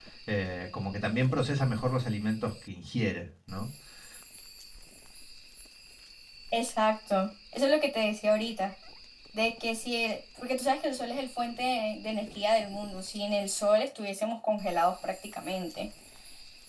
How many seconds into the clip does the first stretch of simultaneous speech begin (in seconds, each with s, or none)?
none